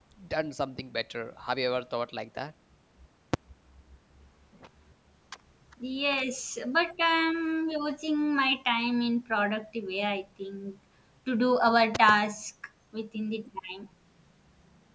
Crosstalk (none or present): none